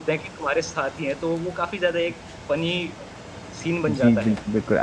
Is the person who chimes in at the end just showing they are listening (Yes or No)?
No